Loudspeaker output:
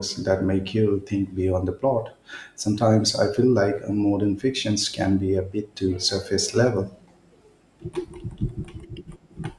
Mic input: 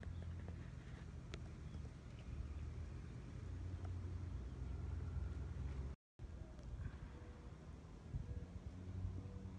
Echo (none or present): none